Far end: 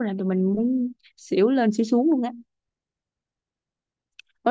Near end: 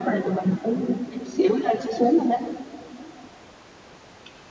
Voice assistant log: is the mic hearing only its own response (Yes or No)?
Yes